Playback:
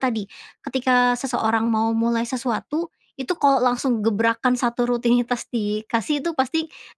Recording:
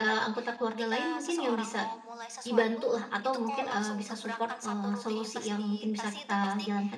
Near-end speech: present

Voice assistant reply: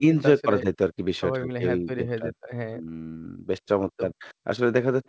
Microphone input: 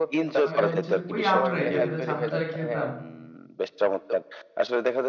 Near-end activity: present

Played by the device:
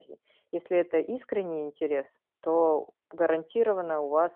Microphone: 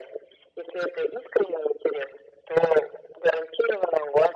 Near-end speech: none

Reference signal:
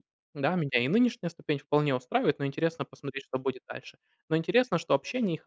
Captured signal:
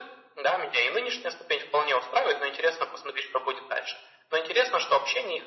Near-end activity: none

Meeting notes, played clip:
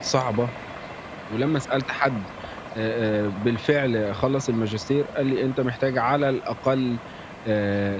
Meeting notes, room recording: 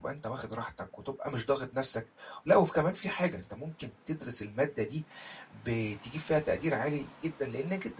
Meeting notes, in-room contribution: present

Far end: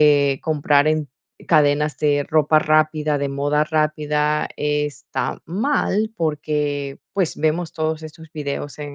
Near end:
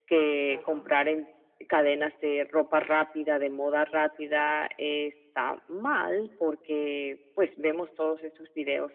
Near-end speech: present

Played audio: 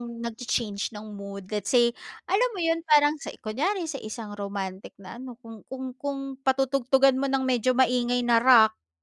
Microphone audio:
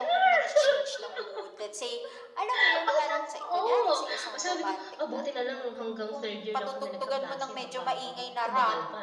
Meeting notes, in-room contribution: present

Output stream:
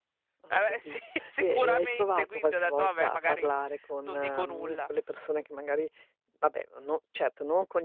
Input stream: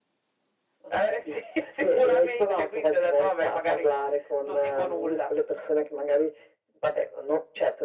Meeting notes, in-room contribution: none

